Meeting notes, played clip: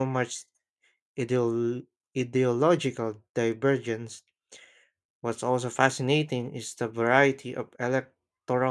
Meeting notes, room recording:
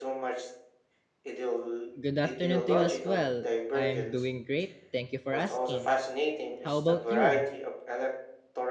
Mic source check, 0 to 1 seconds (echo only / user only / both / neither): echo only